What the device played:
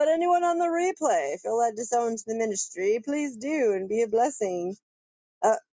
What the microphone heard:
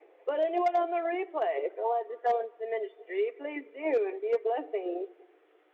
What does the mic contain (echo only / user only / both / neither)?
echo only